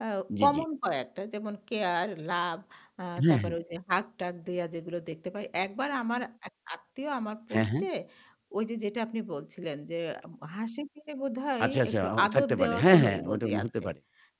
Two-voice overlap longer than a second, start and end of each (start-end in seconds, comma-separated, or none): 11.6-13.8